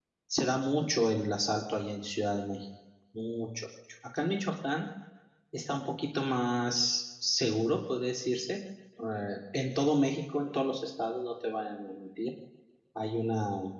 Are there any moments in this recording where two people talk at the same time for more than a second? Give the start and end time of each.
none

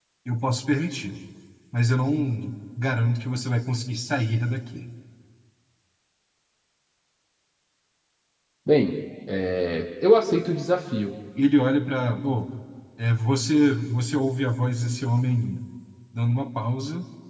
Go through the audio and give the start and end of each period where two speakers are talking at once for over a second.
none

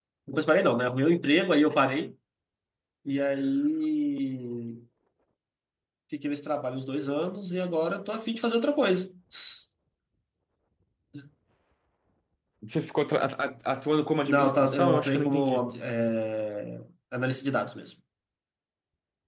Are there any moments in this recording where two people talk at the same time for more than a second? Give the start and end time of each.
14.3-15.7

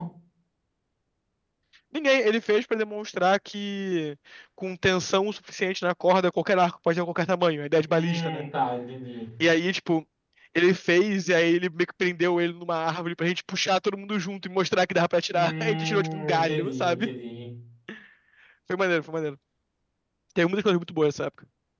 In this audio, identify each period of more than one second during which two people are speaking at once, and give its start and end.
15.3-17.1

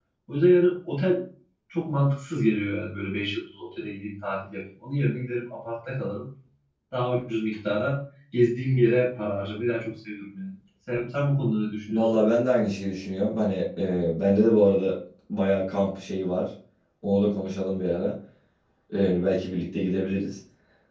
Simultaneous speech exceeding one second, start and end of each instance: none

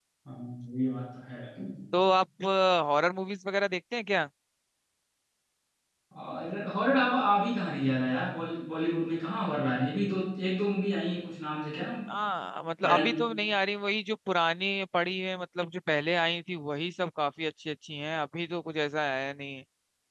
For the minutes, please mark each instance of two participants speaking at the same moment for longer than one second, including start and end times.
none

